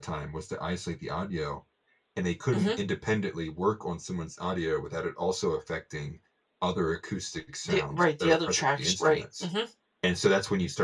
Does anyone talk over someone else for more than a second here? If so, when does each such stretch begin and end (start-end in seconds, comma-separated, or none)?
7.7-9.5